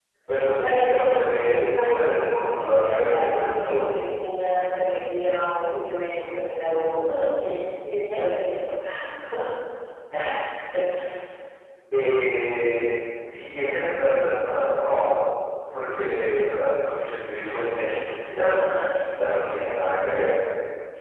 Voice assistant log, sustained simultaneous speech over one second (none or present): present